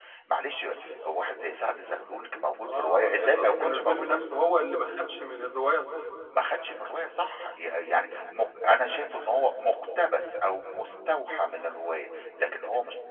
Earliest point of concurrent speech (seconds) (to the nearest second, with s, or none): 3 s